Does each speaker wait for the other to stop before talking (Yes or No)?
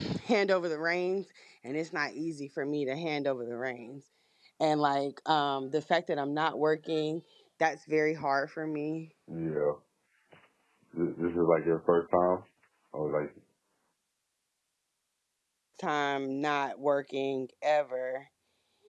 Yes